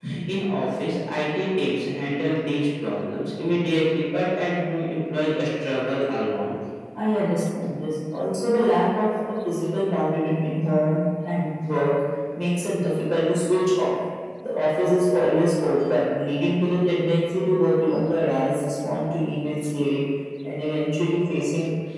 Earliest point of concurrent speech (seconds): none

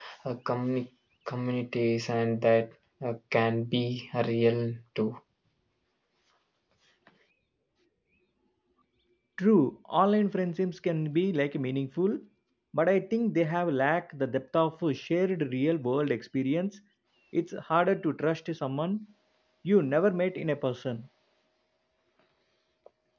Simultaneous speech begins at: none

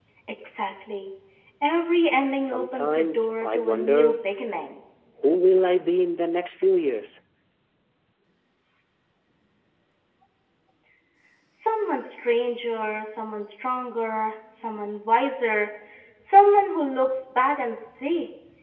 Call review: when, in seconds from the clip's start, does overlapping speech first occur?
2.3 s

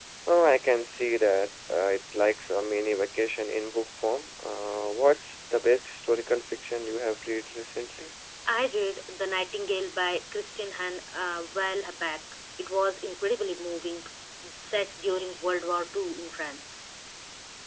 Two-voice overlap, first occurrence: none

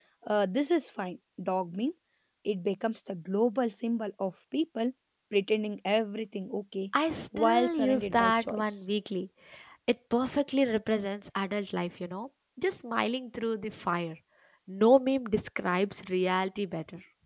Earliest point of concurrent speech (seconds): 7.4 s

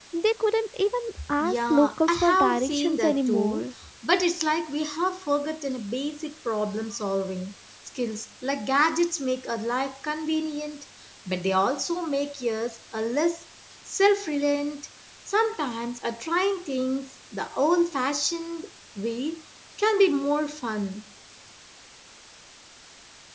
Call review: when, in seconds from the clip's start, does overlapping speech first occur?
1.4 s

